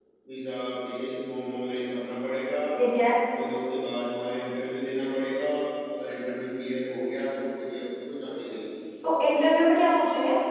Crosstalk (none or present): none